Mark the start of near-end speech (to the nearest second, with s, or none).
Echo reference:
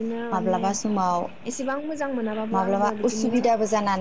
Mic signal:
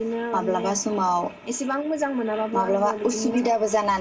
none